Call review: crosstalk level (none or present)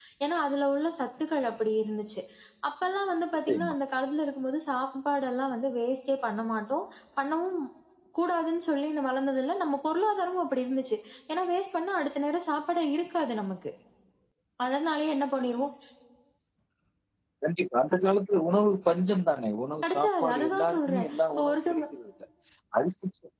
present